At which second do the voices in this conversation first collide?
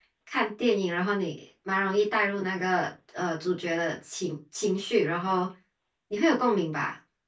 none

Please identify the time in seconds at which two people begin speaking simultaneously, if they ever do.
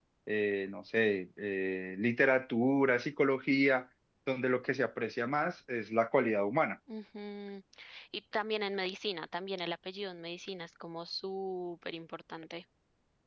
none

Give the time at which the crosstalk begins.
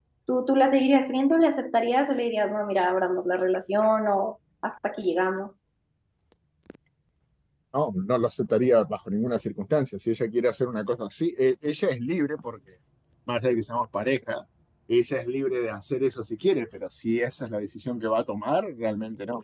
none

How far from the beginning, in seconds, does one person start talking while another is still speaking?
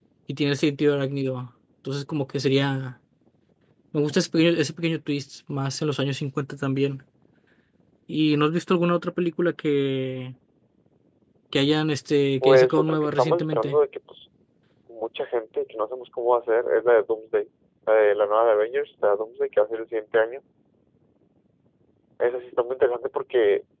12.4 s

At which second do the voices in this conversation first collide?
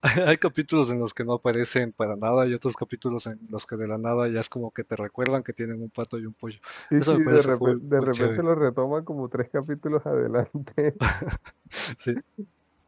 7.0 s

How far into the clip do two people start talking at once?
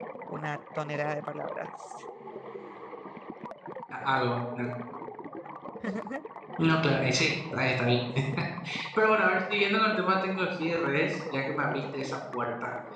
none

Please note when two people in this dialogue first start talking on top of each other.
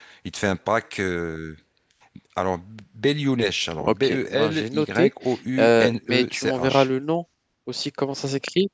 3.8 s

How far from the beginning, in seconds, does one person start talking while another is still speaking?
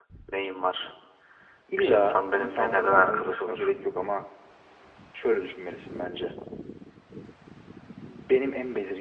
1.8 s

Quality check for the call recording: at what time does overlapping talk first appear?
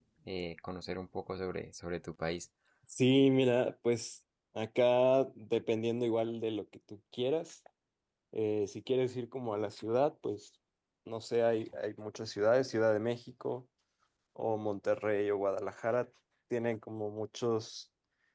none

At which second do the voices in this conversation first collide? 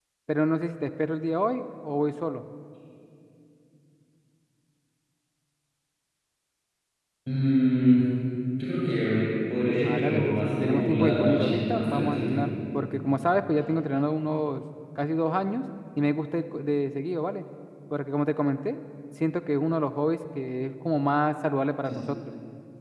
9.8 s

